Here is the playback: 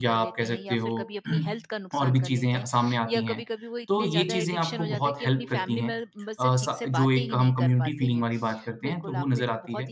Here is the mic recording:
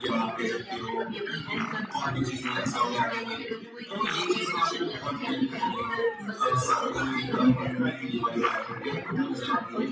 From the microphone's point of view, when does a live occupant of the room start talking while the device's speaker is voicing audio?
none

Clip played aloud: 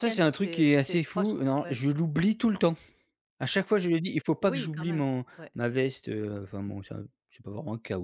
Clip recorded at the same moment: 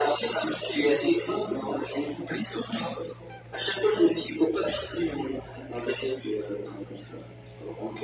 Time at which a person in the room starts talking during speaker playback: none

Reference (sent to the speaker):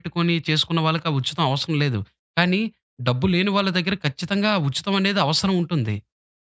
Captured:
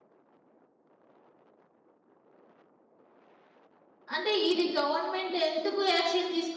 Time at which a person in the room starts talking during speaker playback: 4 s

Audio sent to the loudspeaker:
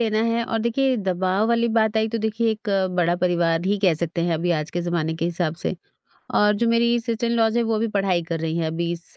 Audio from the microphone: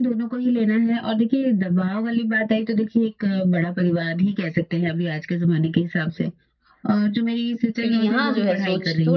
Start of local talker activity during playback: 8 s

